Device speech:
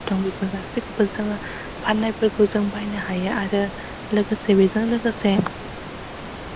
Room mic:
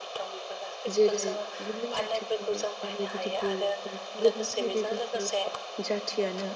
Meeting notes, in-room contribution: present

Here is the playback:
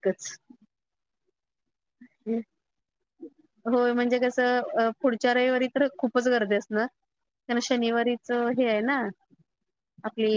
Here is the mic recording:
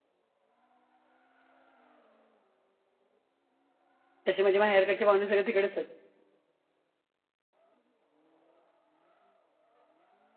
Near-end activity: present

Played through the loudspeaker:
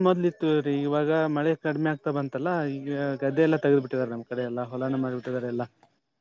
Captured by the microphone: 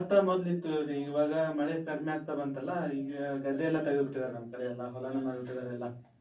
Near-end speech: none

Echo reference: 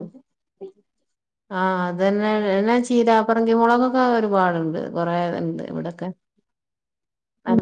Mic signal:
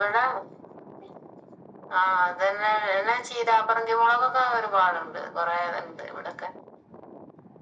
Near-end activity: none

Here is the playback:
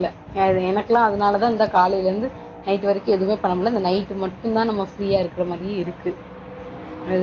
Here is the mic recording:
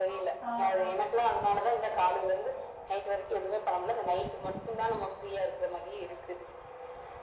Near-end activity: present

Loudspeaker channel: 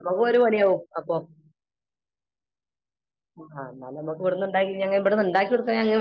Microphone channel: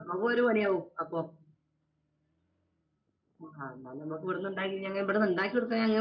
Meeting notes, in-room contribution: none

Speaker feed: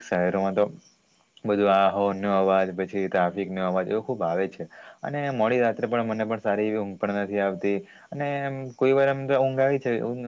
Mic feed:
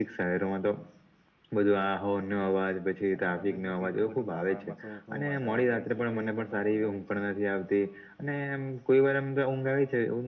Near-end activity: present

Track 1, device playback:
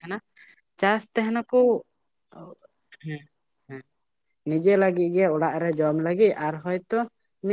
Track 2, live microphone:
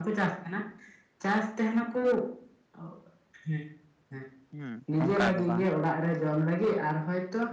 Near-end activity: present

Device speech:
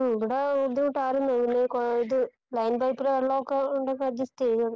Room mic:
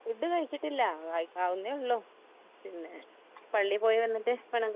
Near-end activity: present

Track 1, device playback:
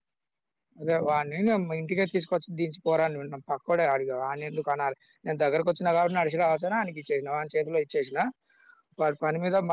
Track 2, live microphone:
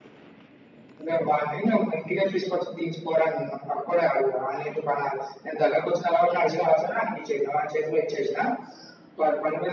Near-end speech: none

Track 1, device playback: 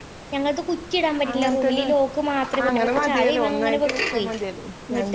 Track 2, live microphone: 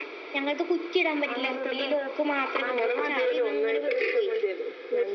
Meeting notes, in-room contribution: none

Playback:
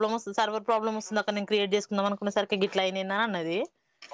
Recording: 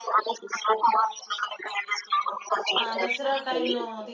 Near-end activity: present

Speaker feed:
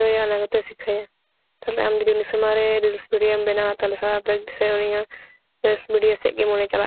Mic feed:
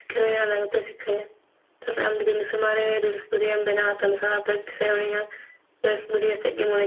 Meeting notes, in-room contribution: none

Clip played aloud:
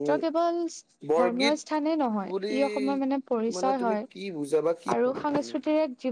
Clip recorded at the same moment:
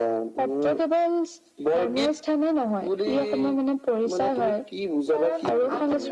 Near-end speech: present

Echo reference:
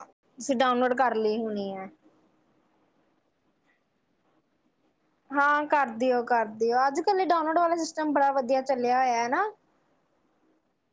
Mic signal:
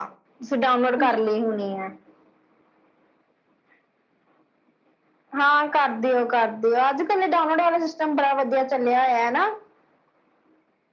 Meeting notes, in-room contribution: present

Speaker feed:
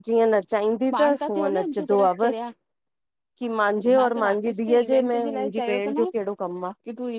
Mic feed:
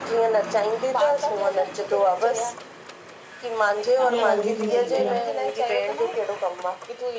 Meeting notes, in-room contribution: present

